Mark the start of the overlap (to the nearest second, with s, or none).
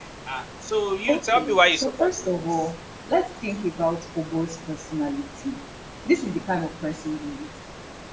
1 s